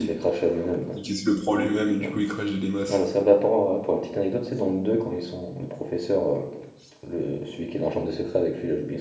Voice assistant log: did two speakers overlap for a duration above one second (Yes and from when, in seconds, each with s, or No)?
No